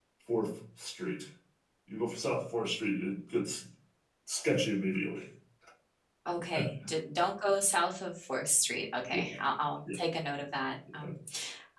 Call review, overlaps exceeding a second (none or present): none